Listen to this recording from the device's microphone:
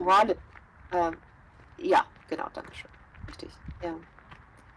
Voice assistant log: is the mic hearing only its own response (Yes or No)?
Yes